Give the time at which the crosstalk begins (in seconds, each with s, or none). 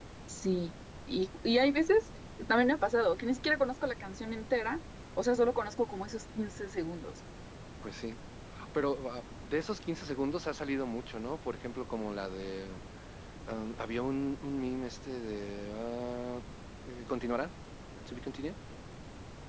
none